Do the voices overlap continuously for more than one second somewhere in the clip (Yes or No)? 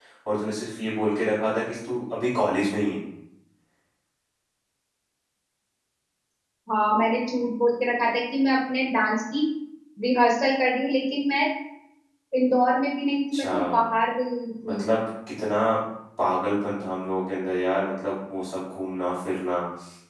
No